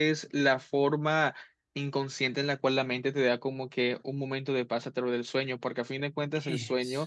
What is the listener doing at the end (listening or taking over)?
listening